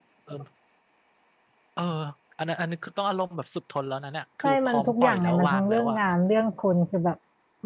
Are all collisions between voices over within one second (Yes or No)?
No